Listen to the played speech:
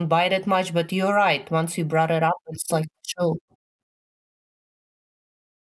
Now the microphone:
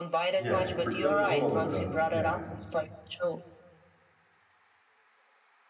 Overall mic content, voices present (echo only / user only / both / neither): both